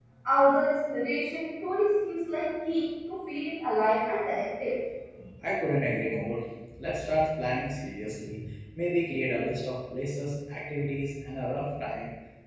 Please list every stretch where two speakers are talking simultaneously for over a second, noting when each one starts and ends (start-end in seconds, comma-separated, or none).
none